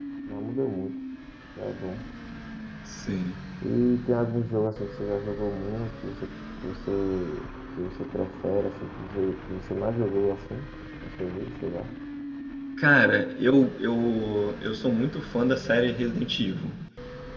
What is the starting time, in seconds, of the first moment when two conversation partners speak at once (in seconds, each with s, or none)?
none